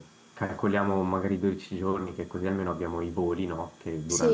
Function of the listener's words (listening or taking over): listening